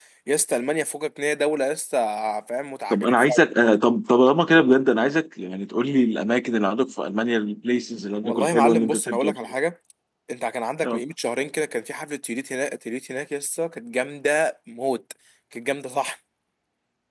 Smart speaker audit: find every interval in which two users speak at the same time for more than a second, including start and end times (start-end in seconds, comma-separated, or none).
8.2-9.5